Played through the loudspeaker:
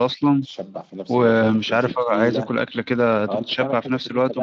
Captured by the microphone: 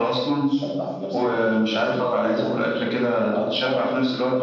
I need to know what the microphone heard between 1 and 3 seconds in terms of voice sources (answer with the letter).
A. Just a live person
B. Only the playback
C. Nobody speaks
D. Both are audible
B